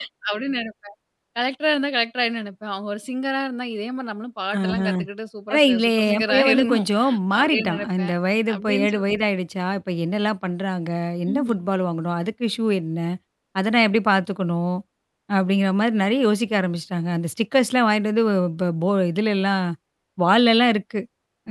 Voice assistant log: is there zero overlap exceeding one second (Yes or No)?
No